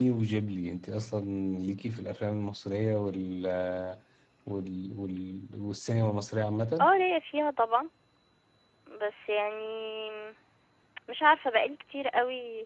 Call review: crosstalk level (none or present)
none